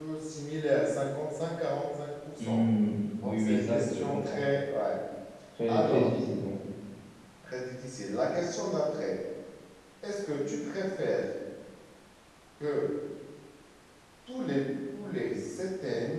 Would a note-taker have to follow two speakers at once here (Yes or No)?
Yes